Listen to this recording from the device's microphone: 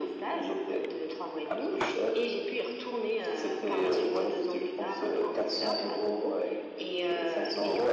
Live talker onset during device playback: none

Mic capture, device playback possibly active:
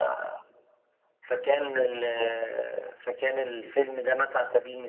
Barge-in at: none

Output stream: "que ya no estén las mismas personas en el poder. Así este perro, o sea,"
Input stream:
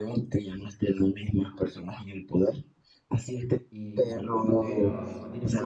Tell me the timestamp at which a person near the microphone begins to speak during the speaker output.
4 s

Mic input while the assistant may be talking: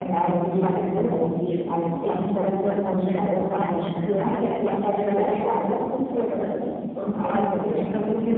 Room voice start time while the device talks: none

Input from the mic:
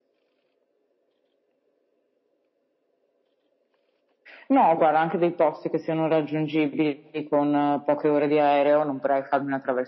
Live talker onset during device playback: none

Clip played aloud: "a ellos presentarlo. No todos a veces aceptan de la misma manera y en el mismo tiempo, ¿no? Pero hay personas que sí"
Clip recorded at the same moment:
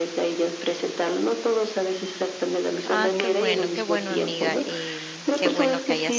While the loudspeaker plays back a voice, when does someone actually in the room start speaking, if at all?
3 s

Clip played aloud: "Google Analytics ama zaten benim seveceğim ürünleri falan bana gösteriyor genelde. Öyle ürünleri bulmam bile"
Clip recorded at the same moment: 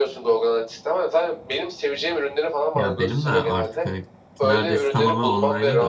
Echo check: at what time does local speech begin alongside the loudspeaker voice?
3 s

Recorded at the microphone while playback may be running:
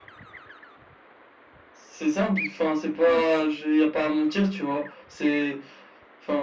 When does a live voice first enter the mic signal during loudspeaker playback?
none

